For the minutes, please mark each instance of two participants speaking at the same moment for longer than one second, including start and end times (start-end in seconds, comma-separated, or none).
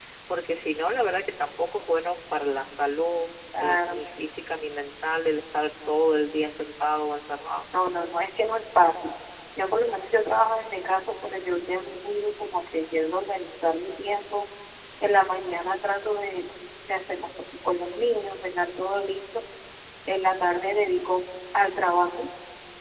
none